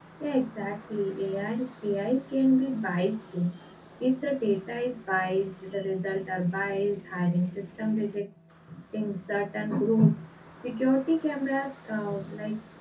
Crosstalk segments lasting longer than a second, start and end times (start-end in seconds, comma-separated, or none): none